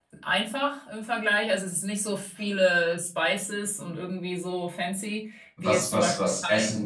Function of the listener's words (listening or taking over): taking over